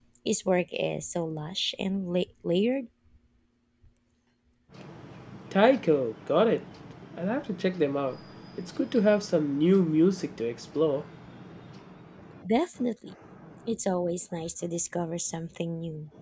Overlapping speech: No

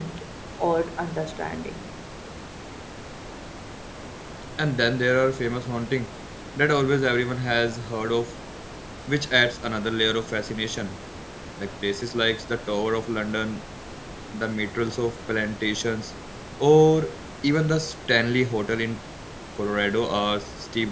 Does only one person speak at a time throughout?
Yes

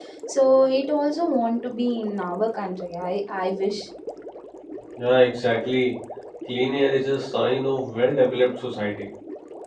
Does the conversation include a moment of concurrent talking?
No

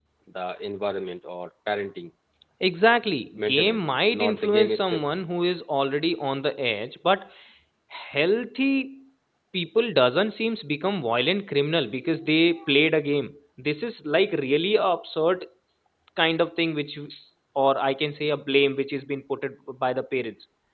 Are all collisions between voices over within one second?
No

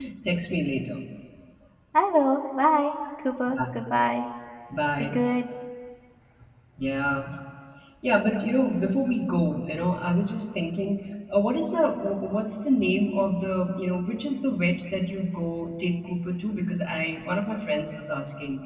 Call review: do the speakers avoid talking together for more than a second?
Yes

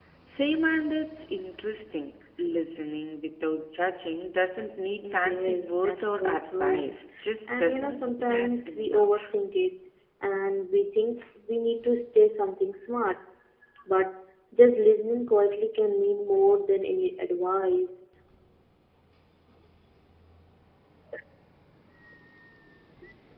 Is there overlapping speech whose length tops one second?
Yes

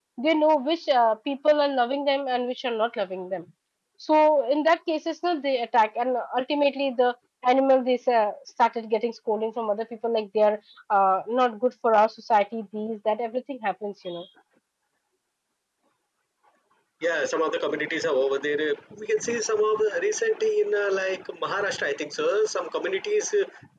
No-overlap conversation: Yes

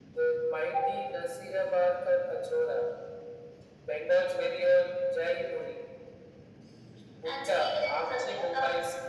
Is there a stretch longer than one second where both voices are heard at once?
Yes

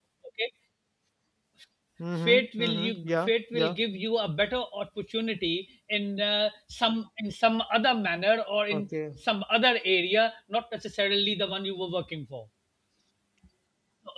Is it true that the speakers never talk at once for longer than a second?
No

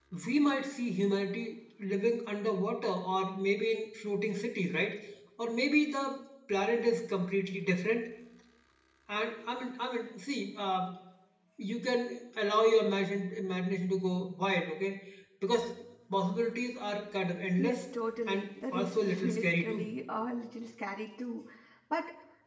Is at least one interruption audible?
Yes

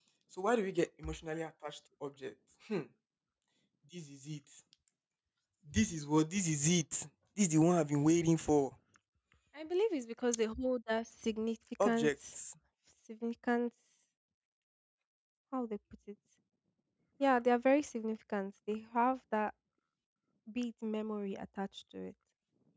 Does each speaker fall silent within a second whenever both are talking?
Yes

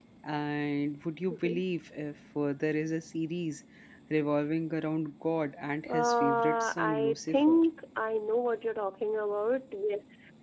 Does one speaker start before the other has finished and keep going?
Yes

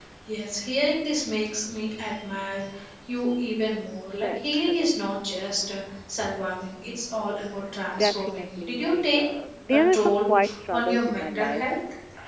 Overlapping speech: Yes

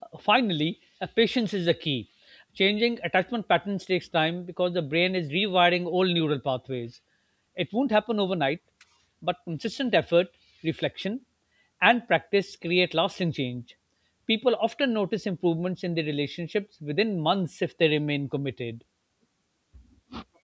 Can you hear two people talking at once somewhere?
No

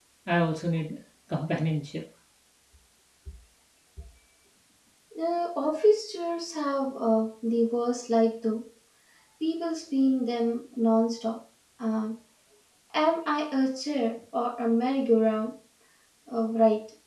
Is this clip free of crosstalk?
Yes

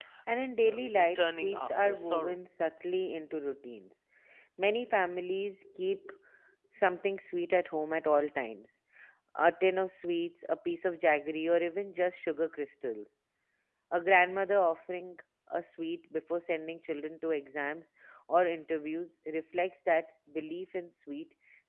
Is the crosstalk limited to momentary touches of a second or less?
No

